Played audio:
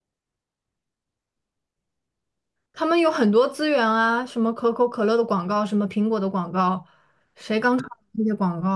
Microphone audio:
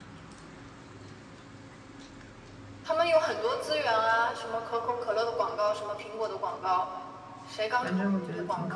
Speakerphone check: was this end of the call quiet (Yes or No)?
No